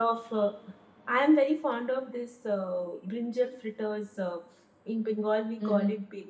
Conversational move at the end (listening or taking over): listening